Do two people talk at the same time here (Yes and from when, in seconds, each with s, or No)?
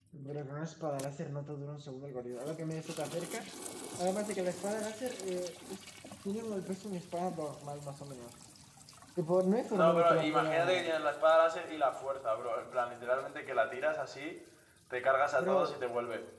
Yes, from 9.7 s